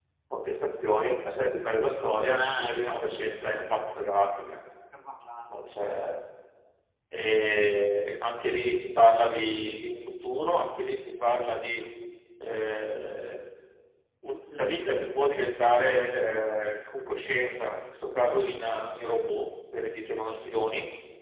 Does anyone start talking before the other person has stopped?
Yes, from 2.4 s

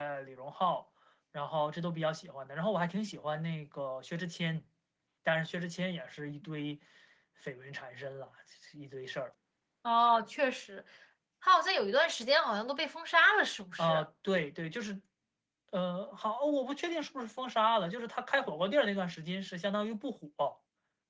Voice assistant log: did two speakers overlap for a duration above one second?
No

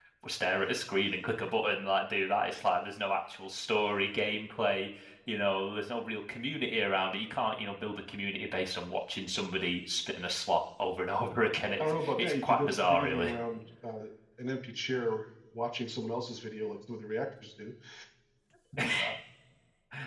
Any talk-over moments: Yes, from 11.8 s

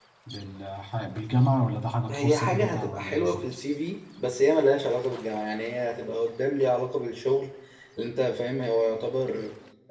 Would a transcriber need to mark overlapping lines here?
Yes, from 2.1 s

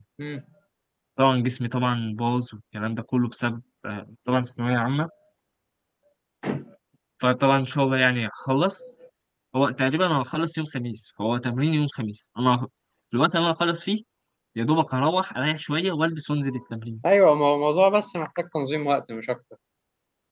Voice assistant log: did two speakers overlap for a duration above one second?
No

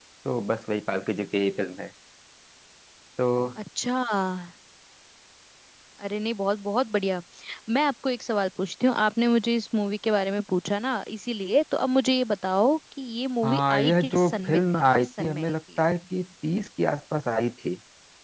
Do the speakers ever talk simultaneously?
Yes, from 13.4 s

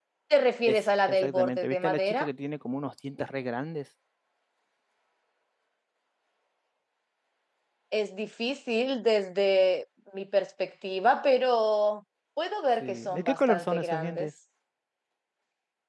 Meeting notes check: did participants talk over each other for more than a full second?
Yes, from 0.7 s

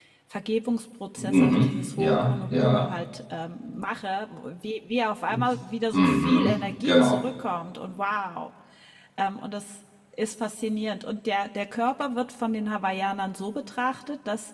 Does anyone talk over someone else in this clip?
Yes, from 1.2 s

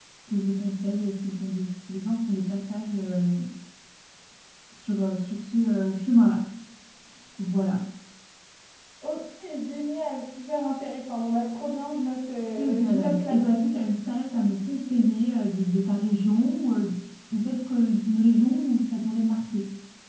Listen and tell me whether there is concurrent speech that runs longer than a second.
Yes, from 12.6 s

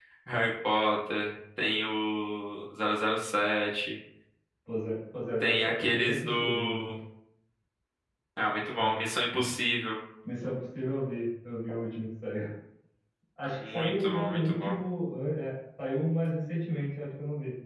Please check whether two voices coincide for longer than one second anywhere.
Yes, from 5.4 s

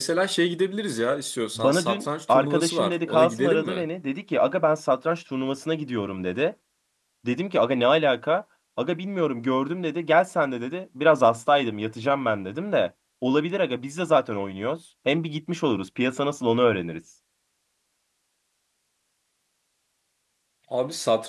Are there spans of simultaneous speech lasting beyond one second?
Yes, from 1.6 s

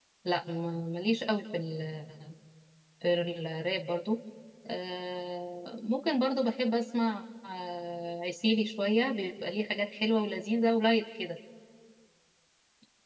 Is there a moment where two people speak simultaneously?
No

